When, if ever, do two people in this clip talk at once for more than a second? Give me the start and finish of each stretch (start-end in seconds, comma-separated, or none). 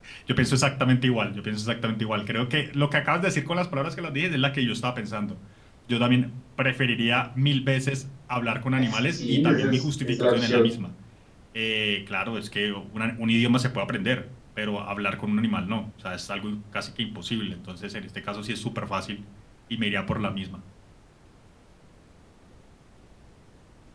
8.8-10.7